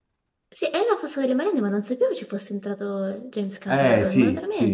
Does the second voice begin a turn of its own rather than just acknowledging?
Yes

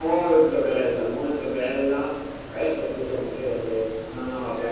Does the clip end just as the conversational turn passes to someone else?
Yes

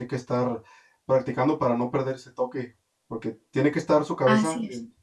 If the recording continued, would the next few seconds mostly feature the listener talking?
No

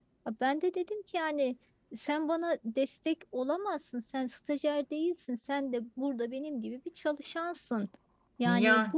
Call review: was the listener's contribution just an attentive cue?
Yes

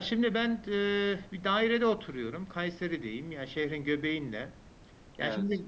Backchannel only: Yes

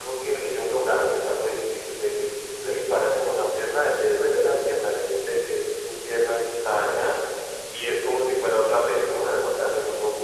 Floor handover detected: Yes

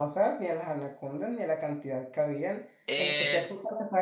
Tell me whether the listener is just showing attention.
Yes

